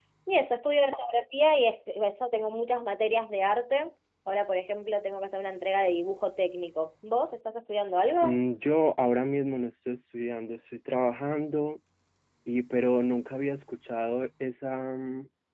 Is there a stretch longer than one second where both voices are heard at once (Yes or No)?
No